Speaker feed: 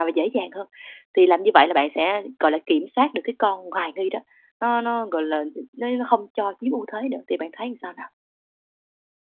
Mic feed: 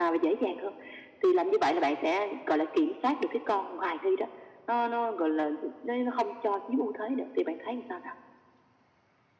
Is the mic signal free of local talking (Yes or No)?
Yes